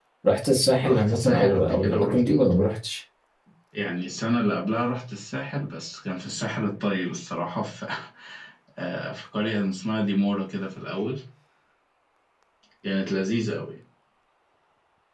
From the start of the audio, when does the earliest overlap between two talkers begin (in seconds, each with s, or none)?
0.8 s